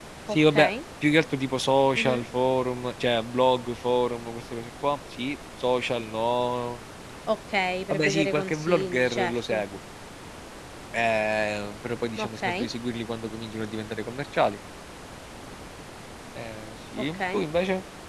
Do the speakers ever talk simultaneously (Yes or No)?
Yes